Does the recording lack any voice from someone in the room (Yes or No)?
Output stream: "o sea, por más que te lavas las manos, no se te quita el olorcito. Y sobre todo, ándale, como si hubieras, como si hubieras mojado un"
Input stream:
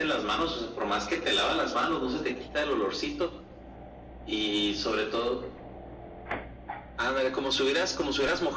Yes